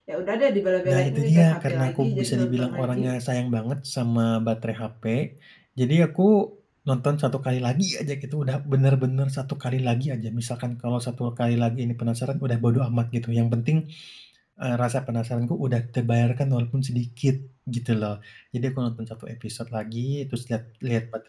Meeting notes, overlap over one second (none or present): present